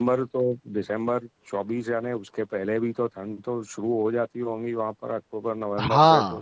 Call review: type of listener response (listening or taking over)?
taking over